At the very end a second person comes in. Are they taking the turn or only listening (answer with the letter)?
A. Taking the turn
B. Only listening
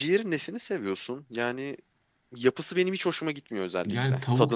A